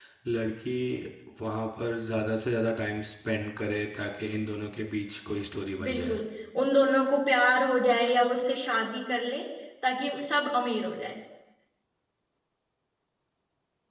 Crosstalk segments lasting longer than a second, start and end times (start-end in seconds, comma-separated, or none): none